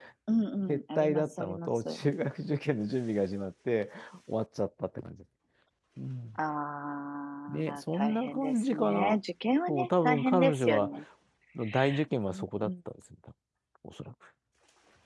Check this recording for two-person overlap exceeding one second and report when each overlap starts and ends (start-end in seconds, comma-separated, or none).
0.7-2.0, 7.5-9.2, 9.7-10.9